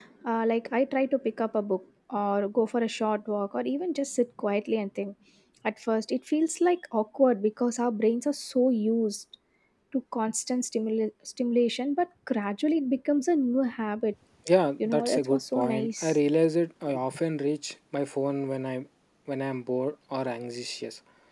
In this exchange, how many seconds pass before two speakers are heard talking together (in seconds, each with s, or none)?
14.8 s